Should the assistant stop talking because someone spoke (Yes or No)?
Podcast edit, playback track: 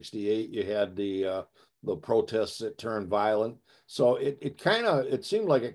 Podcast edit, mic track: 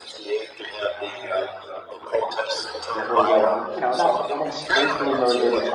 Yes